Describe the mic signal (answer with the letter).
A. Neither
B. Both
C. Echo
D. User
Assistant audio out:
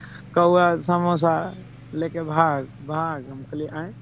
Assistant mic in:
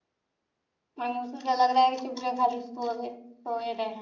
D